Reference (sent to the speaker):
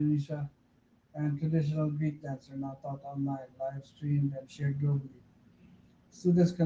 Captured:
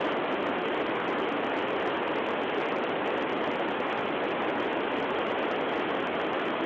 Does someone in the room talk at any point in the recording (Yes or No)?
No